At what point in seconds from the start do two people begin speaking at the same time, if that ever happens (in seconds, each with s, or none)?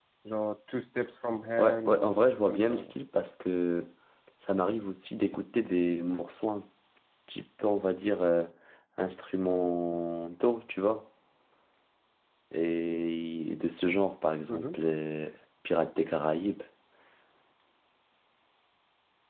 1.6 s